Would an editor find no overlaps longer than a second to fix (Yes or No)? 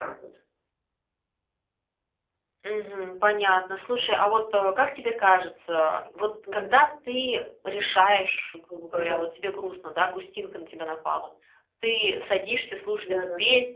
Yes